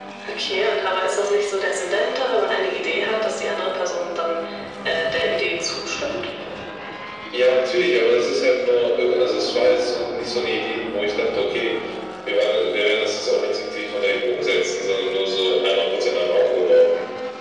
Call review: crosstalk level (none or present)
none